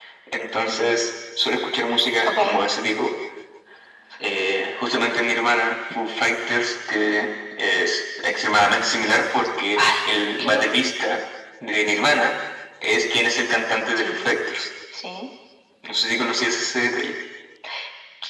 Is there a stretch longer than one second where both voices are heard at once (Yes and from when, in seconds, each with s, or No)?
No